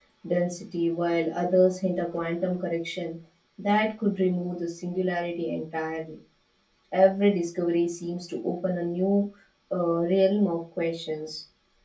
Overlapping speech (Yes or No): No